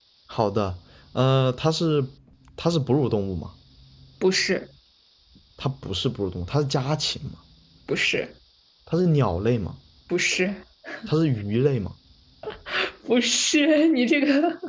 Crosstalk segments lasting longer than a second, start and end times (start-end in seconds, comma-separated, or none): none